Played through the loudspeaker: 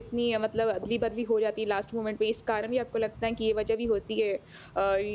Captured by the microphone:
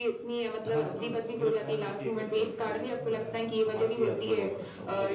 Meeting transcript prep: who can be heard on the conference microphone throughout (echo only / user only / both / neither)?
both